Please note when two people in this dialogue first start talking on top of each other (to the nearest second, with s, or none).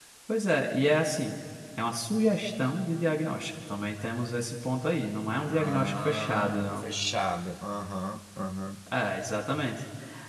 5 s